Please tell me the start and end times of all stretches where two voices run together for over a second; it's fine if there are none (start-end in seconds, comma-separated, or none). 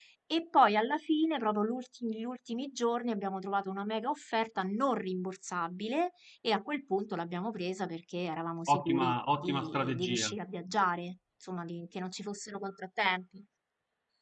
8.7-10.4